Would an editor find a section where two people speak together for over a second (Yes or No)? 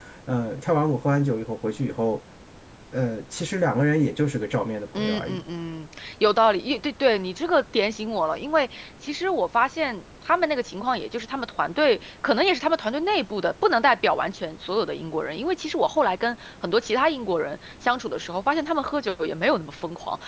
No